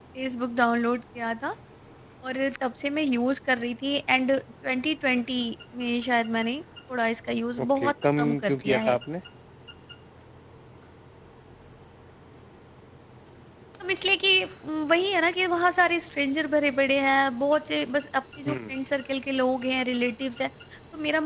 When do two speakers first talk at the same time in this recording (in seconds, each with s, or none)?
7.6 s